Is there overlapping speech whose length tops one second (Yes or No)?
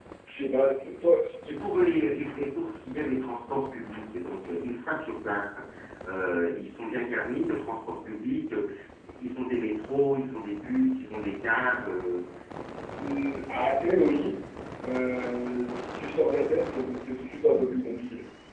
No